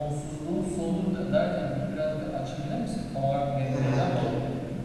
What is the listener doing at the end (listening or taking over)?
taking over